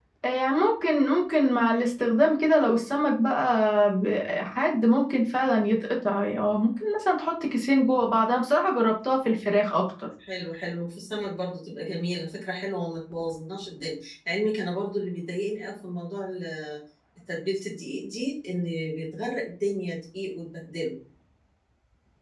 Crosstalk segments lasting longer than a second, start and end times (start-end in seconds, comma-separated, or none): none